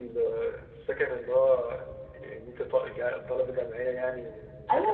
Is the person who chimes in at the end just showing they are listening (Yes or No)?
No